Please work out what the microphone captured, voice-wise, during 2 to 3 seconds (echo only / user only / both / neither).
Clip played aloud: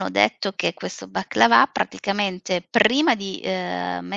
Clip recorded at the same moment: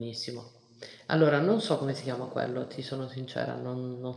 user only